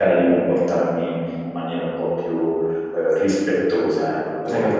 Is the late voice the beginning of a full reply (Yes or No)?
Yes